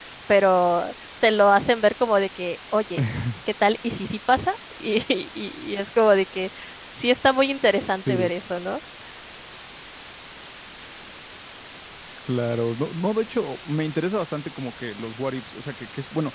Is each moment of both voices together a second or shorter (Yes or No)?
Yes